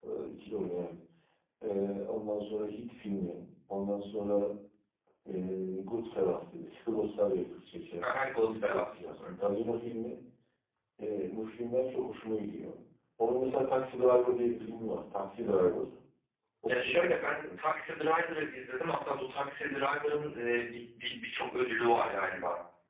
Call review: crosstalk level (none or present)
present